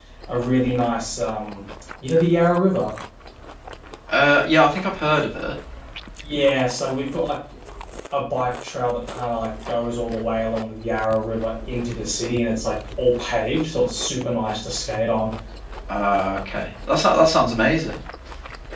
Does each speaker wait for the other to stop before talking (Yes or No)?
Yes